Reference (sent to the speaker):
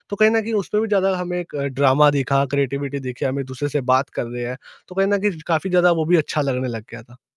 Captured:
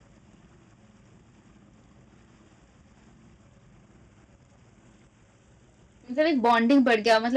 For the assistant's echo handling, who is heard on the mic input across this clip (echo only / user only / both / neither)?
user only